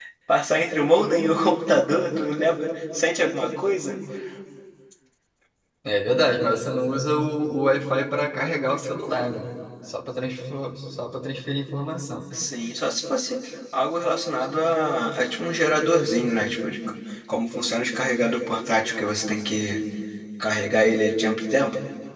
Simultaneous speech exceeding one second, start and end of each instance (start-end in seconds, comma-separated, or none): none